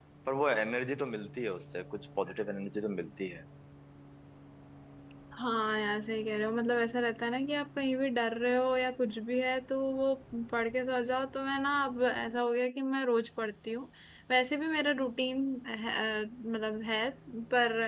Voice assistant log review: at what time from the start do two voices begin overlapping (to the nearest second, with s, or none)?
none